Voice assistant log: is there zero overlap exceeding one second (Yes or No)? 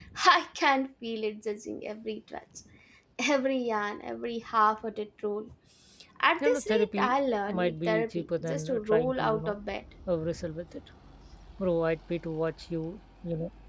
No